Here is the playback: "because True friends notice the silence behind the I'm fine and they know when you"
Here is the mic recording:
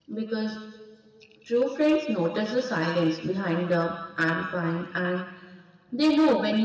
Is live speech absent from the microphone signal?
Yes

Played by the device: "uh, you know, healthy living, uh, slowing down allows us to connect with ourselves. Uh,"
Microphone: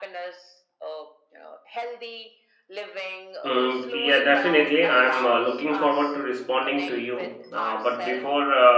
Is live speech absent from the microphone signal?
No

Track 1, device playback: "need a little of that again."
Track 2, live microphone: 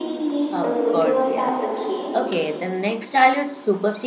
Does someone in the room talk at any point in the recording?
Yes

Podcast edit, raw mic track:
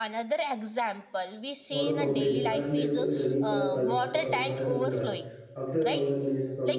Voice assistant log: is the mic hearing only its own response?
No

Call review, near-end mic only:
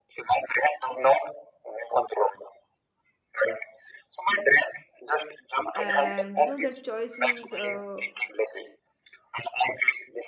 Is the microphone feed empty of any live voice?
No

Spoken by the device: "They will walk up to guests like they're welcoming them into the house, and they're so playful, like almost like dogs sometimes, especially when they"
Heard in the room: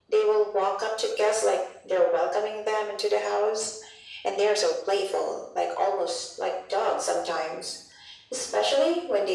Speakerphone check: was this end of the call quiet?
Yes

